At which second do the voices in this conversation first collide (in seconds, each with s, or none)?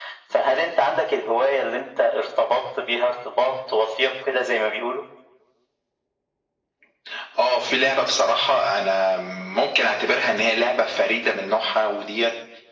none